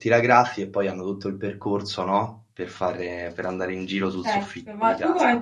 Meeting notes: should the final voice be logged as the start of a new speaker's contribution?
Yes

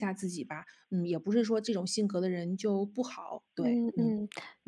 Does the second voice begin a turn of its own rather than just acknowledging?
Yes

